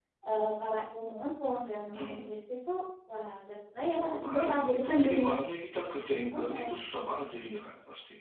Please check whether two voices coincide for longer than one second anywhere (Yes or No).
Yes